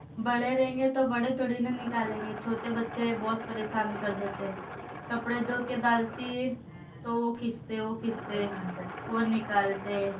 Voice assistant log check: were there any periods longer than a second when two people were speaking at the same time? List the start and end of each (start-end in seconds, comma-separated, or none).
none